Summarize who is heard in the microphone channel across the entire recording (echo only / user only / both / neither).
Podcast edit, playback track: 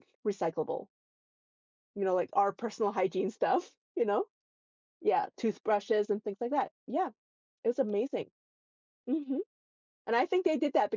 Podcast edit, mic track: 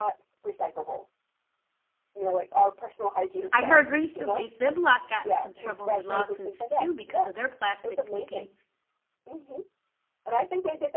both